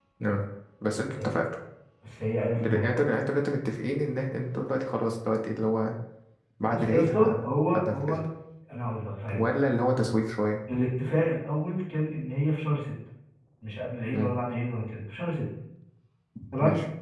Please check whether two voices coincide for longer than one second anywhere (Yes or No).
Yes